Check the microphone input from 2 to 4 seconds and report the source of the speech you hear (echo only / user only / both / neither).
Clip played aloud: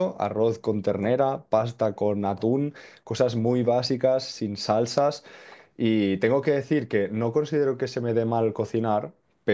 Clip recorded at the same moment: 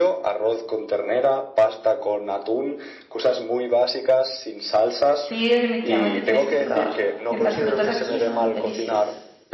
echo only